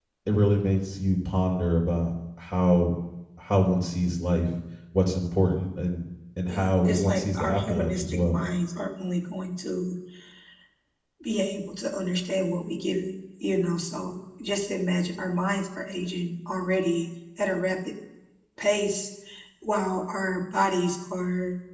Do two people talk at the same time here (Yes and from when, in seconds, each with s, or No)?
Yes, from 6.4 s